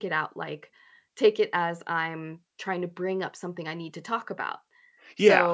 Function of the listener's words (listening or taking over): taking over